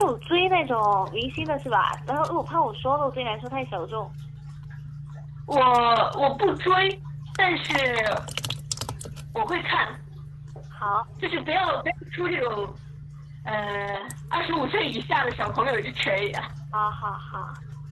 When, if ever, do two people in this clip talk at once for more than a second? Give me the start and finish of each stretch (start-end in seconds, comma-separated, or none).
none